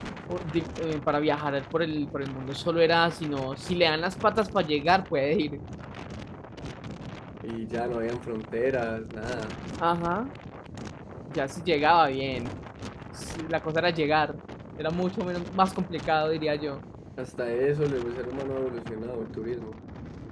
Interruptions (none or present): none